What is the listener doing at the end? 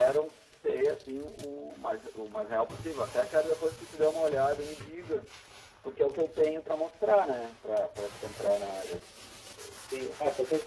taking over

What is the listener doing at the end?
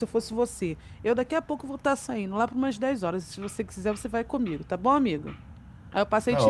taking over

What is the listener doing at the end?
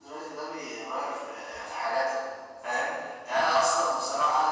listening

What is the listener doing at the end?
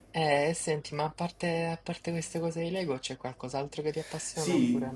taking over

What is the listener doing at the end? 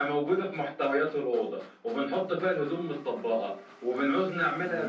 listening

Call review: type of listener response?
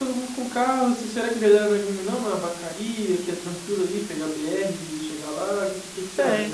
taking over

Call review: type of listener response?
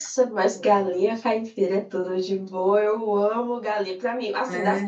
listening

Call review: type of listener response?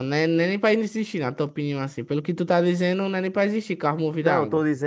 taking over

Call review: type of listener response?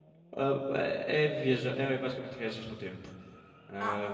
taking over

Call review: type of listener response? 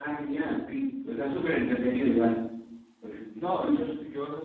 taking over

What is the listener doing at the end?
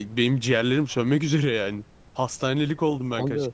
taking over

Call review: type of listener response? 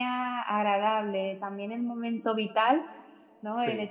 listening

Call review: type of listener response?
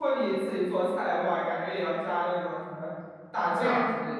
taking over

